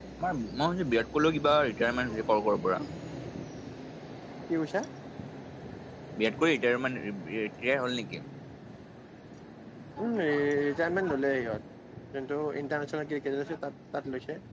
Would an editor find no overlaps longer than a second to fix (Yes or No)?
Yes